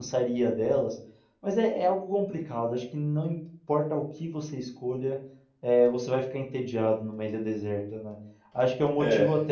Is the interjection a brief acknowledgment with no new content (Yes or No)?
Yes